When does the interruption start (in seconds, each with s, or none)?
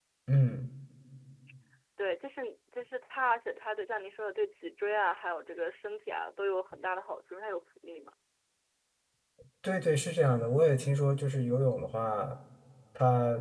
none